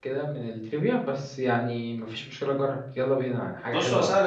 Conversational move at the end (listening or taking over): taking over